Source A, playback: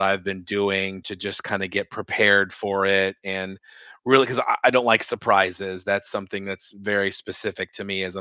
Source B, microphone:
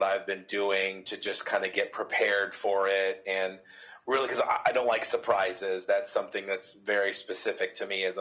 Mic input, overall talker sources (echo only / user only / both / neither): echo only